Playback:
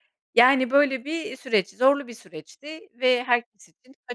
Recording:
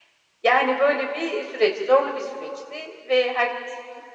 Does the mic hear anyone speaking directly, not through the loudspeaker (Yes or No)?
No